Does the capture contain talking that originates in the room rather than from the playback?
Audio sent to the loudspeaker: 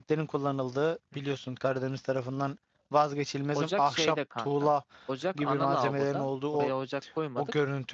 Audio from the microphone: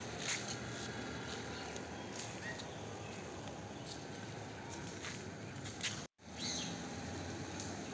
No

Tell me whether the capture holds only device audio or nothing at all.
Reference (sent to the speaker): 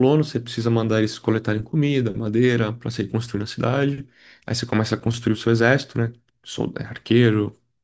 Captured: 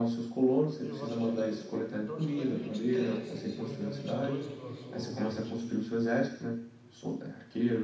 No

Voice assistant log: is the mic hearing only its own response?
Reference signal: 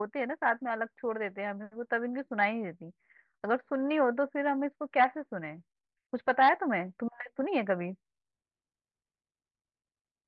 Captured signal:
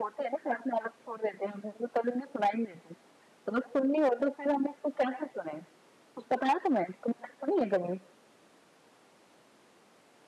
Yes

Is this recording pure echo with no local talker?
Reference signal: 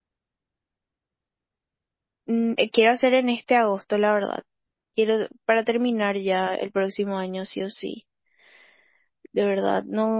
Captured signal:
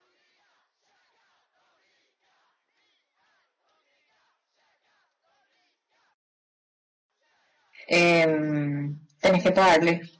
No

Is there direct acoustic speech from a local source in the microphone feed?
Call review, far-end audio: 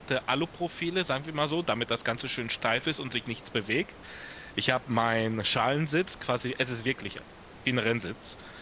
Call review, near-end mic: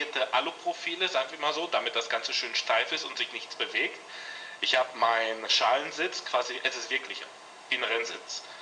No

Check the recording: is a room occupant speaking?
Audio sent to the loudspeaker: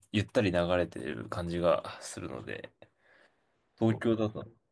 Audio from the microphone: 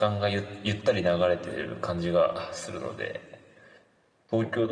No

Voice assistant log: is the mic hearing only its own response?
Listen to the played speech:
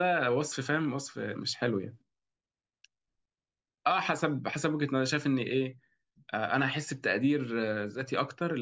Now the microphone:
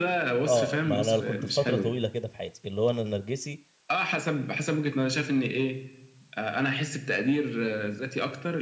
No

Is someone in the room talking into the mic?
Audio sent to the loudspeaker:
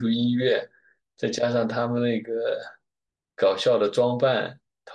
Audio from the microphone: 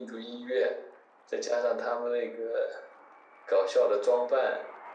No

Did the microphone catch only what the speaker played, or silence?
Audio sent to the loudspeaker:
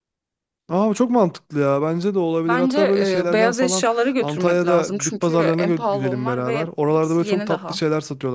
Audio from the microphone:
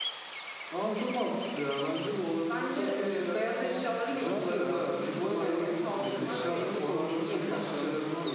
No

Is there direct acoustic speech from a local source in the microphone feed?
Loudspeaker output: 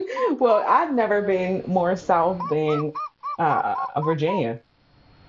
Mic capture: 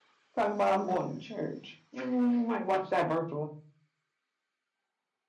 Yes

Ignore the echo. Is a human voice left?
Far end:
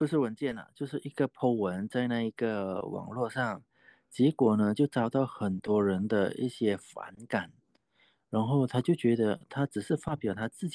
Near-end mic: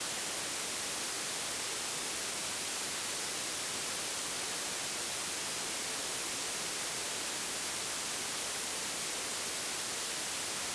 No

